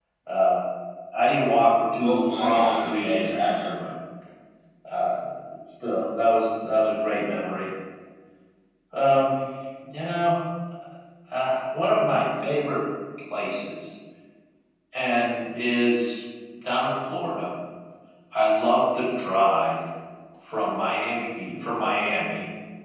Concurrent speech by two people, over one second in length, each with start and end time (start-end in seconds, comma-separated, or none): 2.0-3.8